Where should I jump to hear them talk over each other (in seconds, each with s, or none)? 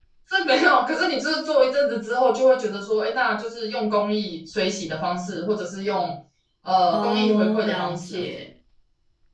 6.9 s